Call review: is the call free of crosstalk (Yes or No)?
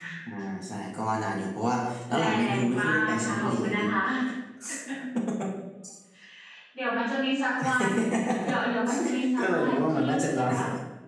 No